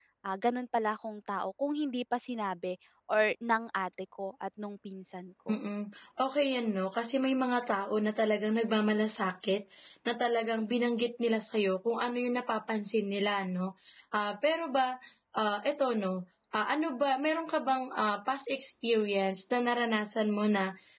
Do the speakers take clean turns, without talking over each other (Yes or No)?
Yes